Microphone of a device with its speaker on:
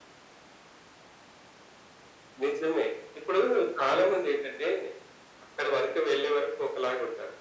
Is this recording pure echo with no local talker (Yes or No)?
Yes